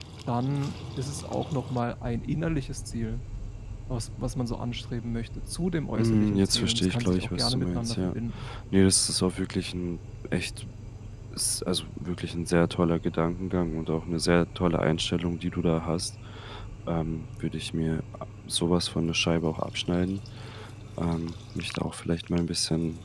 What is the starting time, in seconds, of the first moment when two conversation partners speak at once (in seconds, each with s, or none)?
6.0 s